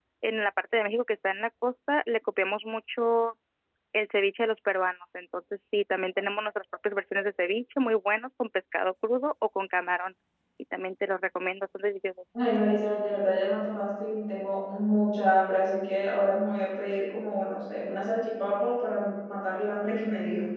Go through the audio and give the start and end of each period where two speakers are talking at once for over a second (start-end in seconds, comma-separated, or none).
none